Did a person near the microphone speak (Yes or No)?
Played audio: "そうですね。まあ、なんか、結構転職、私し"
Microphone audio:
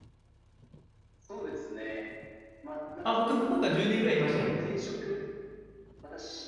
Yes